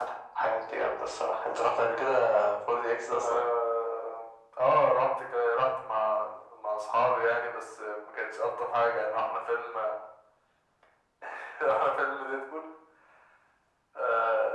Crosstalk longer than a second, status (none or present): none